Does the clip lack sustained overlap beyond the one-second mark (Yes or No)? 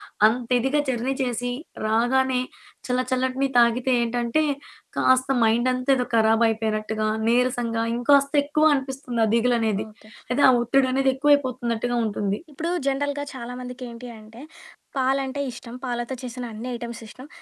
Yes